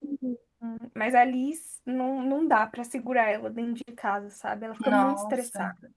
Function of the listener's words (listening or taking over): taking over